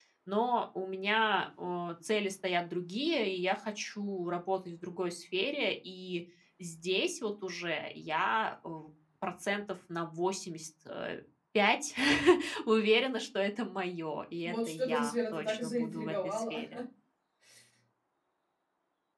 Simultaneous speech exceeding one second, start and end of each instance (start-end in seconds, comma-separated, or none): 14.4-16.6